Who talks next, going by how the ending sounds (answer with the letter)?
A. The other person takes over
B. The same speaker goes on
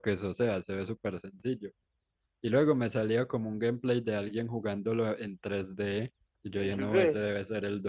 B